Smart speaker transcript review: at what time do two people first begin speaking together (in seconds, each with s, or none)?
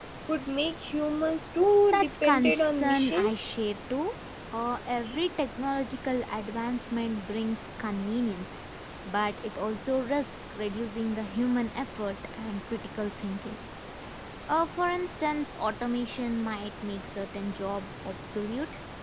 1.9 s